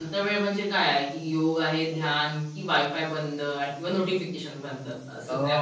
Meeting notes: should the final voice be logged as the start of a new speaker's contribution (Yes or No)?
Yes